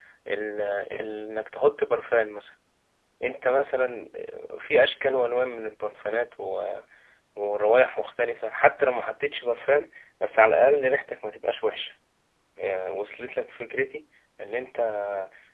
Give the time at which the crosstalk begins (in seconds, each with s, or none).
none